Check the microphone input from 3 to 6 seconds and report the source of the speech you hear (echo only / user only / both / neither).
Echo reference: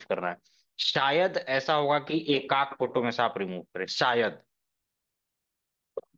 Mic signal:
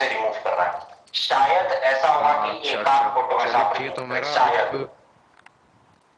both